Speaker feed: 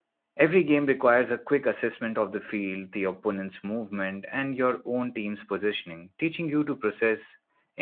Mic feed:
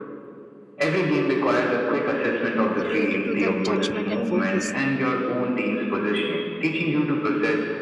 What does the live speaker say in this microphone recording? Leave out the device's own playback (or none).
related to that judgment and focus.